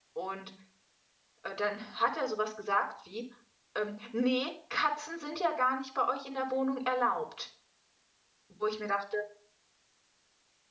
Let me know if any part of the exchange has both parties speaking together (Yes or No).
No